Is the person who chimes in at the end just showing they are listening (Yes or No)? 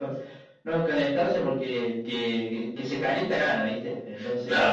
No